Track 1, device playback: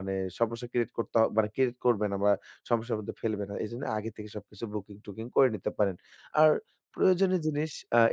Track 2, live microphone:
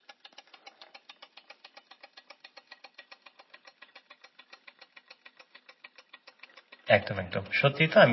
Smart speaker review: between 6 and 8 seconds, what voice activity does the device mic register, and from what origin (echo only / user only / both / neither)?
user only